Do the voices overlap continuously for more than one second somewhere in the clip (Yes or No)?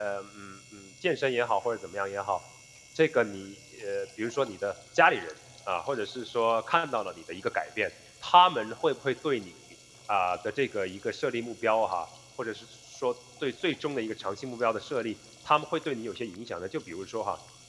No